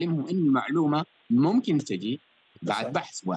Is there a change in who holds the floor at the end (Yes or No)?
No